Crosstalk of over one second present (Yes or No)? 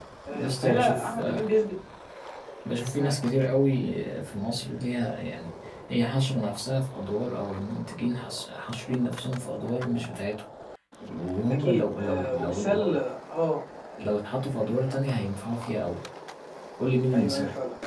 Yes